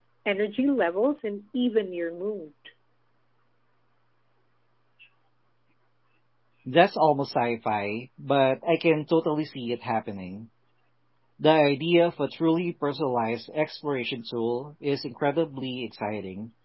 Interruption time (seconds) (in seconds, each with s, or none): none